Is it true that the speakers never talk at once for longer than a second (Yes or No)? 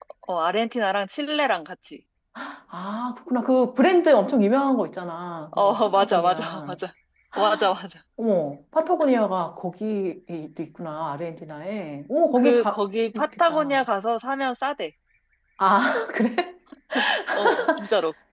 No